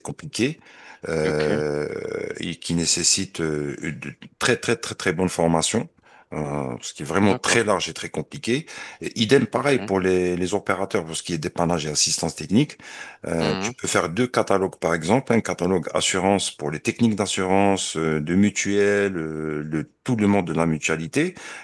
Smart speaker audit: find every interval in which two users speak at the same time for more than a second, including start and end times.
none

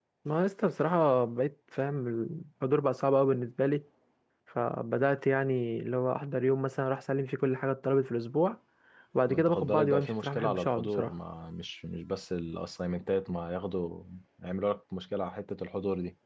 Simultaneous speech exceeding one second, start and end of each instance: 9.3-11.1

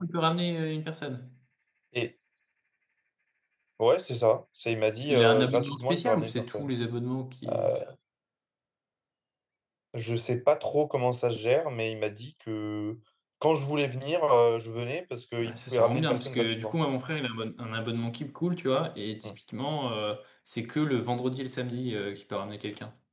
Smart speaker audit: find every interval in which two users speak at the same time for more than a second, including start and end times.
5.0-6.7, 15.4-16.8

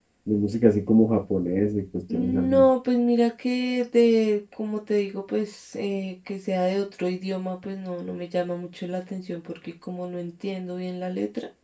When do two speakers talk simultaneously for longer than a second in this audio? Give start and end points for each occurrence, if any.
none

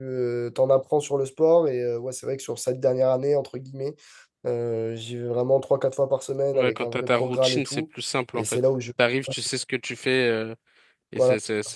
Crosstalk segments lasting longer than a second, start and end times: 6.5-7.8

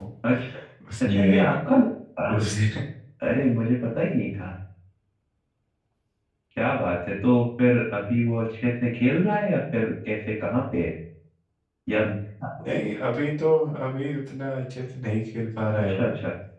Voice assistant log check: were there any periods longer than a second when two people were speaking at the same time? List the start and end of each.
none

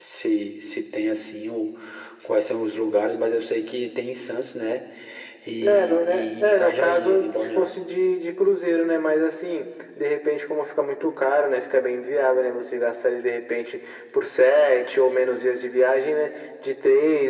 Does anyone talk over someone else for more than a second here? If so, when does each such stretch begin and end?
5.6-7.8

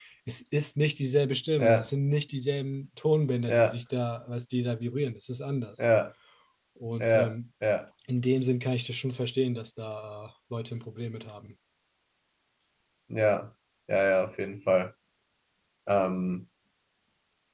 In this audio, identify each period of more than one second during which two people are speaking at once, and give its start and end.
none

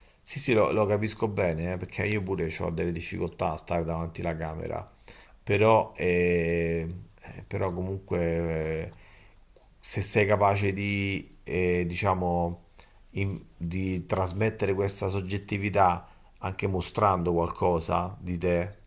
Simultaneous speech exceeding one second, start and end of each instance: none

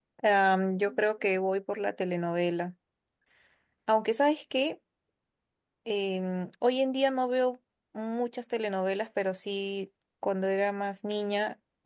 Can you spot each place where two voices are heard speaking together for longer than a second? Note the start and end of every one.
none

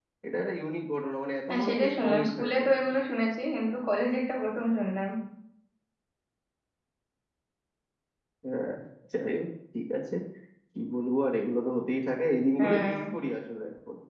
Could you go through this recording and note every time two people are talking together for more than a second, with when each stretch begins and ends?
1.5-2.8

